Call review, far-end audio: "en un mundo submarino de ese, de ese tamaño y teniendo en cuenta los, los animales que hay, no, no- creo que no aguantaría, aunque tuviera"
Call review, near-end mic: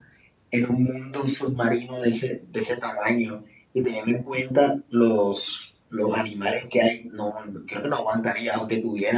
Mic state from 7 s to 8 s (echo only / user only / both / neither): echo only